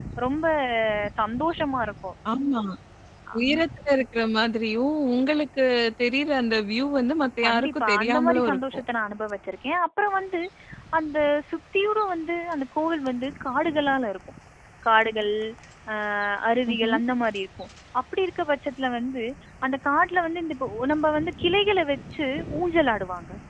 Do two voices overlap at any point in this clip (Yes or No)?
Yes